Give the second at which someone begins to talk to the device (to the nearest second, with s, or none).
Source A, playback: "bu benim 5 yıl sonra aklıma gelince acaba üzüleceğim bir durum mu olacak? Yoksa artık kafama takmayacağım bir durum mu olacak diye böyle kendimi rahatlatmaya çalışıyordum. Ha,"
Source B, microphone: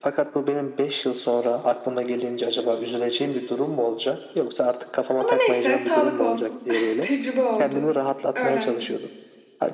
5 s